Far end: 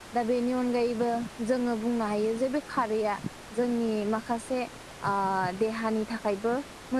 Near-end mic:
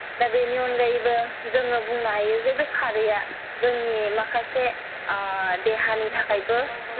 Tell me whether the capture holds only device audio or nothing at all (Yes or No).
No